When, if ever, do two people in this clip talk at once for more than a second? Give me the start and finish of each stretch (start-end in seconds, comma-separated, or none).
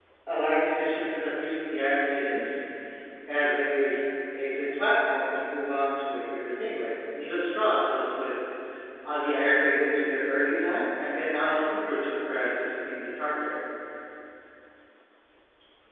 none